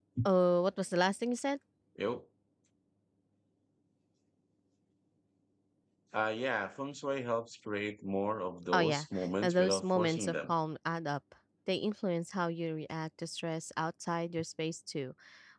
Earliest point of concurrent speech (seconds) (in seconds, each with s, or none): 8.7 s